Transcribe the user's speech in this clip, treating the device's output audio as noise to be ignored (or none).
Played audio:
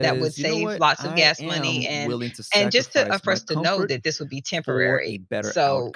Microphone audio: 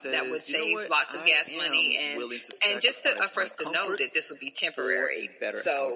none